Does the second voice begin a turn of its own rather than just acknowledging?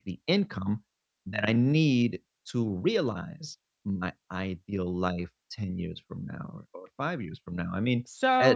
Yes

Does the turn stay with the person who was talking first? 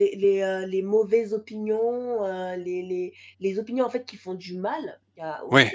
Yes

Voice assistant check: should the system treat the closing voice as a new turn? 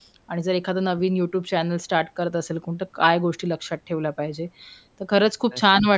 No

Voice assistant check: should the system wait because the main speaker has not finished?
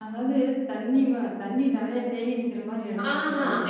No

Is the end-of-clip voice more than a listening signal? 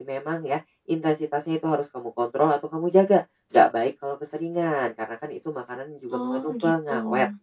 No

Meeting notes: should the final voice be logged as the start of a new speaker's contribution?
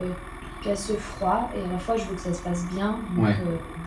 Yes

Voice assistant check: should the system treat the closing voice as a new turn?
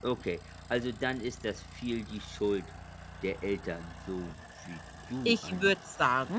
Yes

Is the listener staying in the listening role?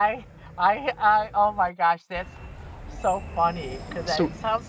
Yes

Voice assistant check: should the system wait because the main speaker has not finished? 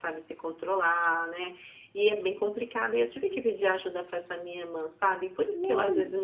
Yes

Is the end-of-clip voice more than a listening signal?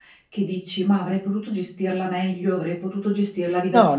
Yes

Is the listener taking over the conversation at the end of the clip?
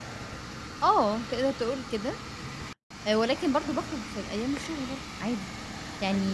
Yes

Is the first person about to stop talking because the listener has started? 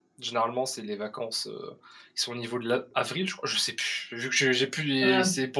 No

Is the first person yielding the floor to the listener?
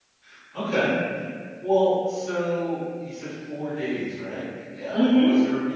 No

